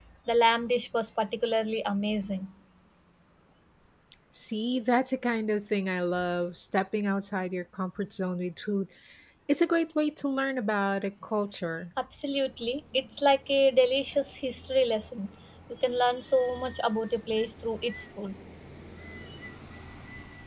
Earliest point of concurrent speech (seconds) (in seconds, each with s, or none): none